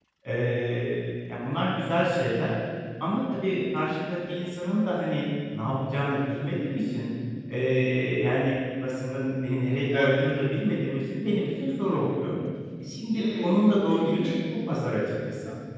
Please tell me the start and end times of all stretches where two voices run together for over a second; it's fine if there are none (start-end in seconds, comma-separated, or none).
13.1-14.4